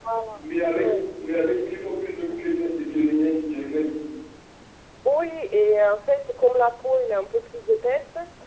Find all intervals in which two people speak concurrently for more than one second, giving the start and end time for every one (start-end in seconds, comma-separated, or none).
none